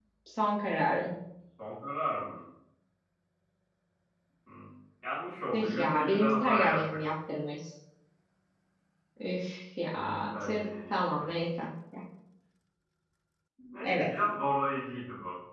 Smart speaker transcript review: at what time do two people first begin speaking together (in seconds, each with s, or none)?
5.5 s